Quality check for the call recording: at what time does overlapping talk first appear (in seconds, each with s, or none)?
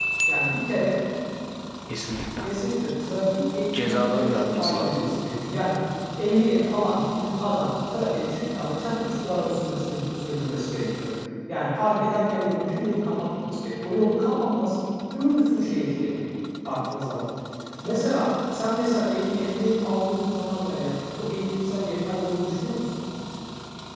3.7 s